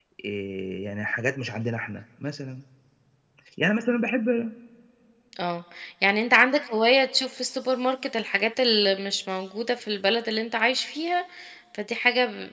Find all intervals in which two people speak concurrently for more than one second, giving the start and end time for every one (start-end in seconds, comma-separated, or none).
none